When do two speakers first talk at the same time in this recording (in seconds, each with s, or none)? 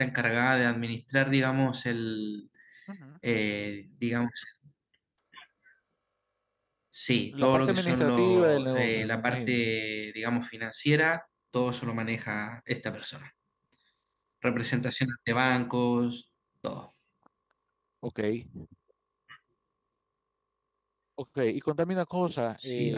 7.4 s